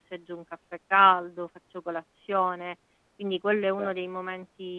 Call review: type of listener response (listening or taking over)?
listening